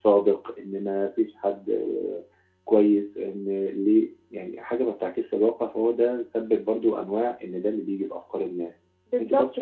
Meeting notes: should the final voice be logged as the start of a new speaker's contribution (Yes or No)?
Yes